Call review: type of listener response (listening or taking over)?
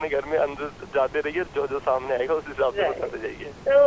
taking over